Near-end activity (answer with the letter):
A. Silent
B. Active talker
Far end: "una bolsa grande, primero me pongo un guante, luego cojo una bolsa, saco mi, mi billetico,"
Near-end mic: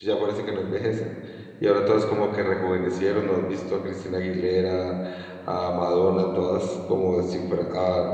B